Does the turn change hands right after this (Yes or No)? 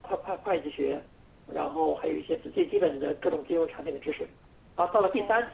No